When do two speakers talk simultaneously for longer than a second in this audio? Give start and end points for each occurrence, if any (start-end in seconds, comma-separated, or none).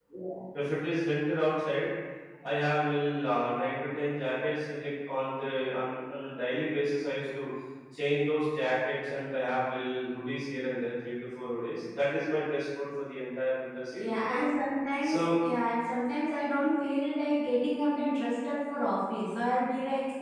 none